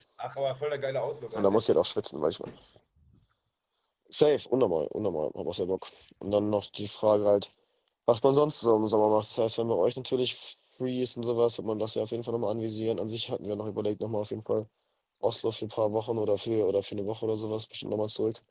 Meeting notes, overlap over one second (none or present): none